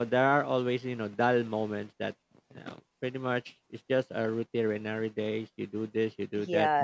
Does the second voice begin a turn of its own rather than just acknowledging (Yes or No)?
Yes